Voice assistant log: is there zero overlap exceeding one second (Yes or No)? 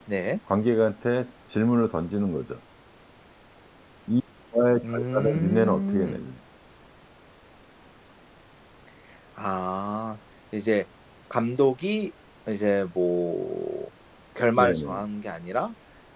No